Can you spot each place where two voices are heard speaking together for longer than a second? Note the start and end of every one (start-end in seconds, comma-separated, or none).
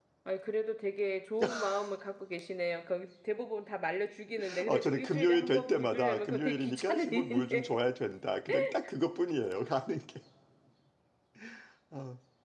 4.7-7.7